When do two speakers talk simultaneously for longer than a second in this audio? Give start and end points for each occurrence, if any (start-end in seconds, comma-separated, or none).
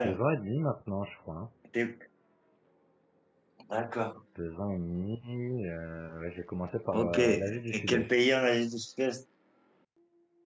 6.9-8.1